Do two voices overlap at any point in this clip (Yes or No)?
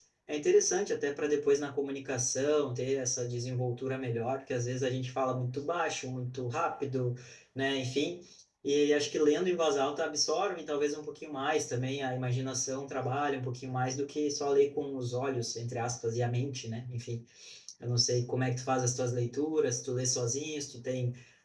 No